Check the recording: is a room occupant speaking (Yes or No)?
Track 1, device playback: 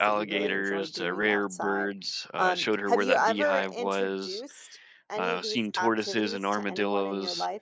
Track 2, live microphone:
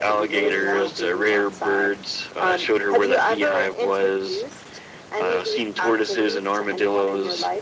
Yes